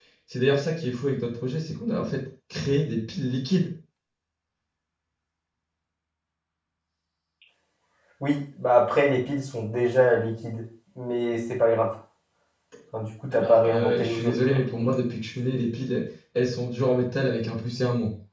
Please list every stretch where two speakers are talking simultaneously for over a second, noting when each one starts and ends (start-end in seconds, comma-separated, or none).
13.3-14.6